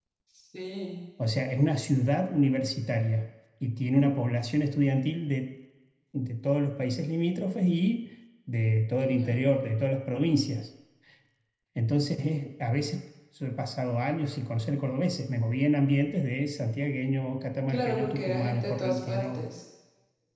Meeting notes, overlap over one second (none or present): present